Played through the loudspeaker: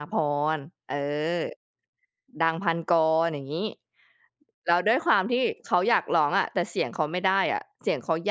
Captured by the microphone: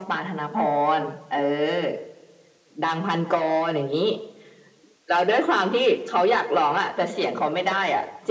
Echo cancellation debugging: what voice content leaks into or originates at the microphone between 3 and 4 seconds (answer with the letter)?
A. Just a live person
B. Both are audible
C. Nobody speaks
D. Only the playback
D